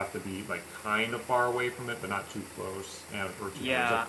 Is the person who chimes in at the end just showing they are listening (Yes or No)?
No